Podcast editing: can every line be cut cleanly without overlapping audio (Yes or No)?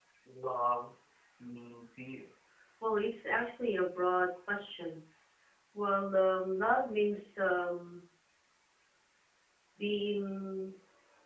Yes